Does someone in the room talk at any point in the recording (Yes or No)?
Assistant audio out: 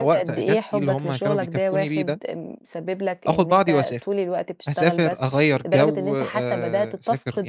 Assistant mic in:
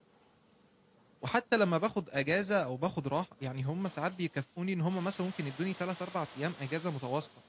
Yes